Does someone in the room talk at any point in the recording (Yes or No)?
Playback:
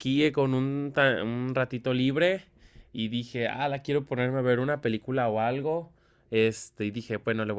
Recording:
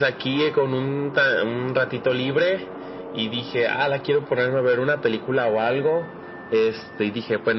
No